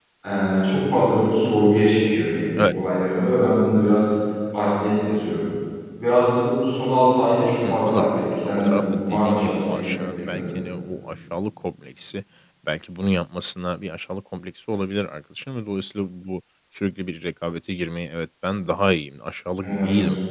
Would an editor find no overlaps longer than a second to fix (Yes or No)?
No